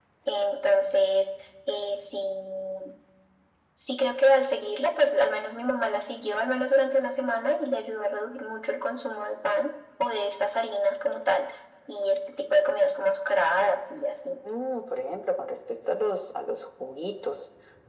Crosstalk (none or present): none